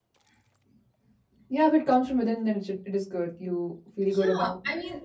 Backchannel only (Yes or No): No